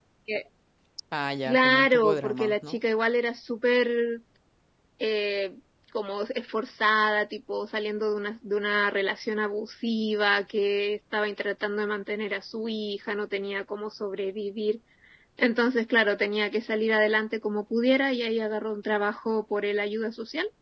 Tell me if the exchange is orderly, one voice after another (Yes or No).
No